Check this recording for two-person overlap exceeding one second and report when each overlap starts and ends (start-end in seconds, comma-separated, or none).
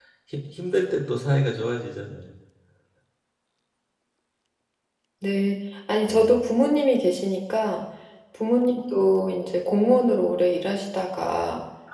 none